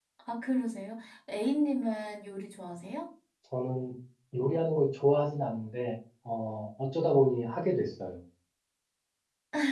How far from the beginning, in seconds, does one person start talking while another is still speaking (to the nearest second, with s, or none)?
none